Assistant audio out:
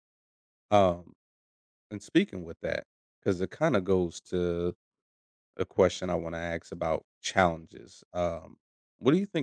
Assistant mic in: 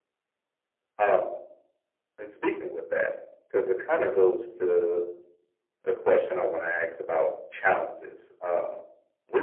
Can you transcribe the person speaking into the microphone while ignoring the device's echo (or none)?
none